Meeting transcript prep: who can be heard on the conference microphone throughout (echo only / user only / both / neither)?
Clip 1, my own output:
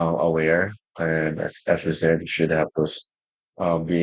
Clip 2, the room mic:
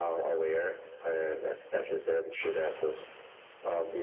echo only